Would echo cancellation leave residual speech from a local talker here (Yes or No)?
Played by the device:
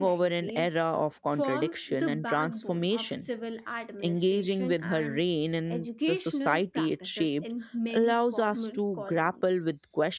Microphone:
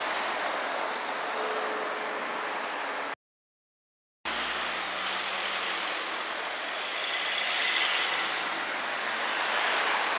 No